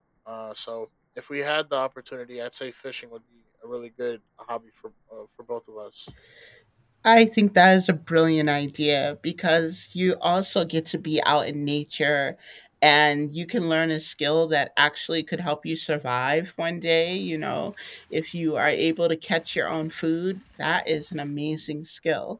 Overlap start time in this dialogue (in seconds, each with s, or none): none